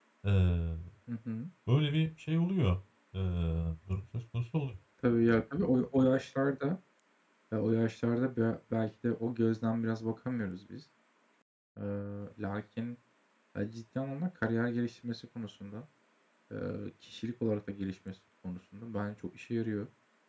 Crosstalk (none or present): none